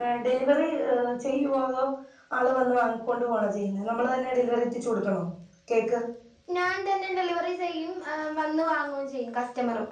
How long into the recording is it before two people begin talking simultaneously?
none

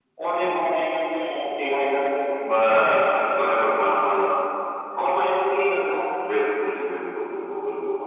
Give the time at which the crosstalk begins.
none

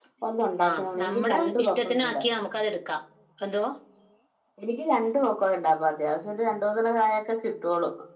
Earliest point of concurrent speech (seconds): 0.7 s

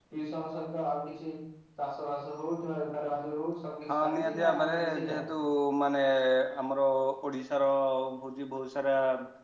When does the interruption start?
3.9 s

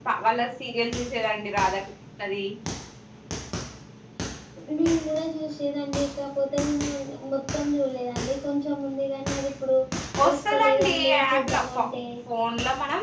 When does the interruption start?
10.3 s

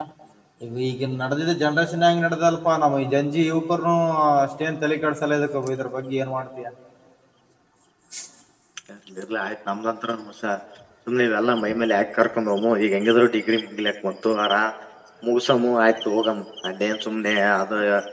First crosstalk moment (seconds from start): none

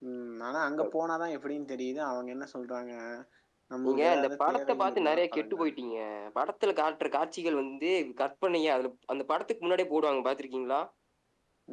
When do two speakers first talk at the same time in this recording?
3.9 s

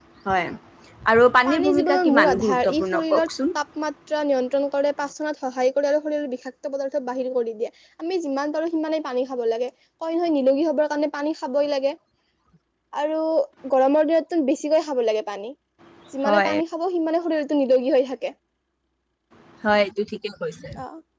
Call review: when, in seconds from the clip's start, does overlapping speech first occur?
1.5 s

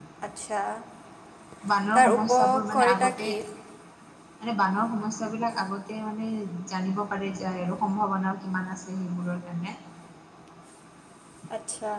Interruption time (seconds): 1.9 s

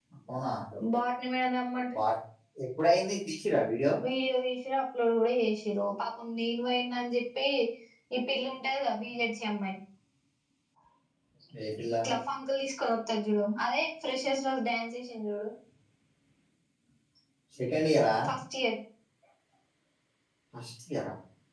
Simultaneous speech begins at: none

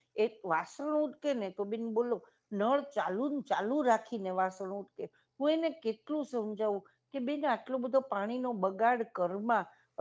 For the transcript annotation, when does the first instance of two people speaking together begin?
none

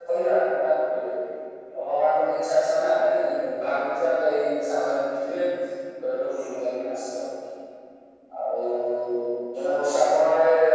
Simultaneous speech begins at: none

